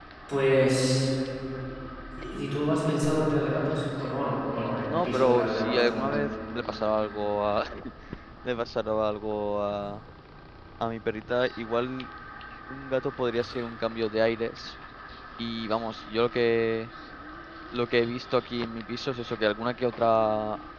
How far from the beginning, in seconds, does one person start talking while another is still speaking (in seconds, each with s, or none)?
4.2 s